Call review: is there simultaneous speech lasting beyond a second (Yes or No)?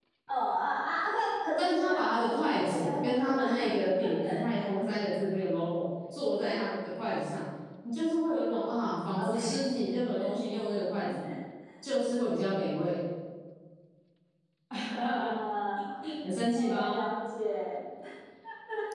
Yes